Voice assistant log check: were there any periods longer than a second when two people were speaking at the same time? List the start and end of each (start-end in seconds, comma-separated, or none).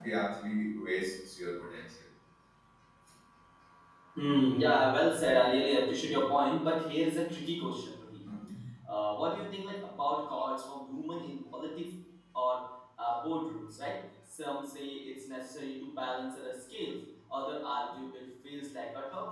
none